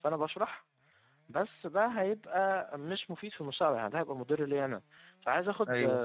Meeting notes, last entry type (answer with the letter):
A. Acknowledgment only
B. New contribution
A